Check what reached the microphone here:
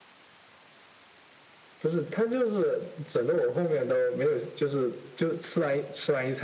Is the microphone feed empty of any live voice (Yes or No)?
Yes